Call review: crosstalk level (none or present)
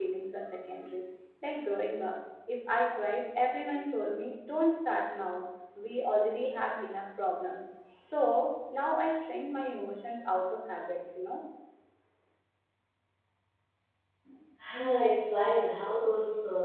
none